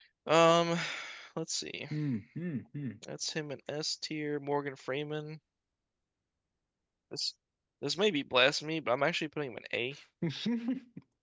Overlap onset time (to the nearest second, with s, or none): none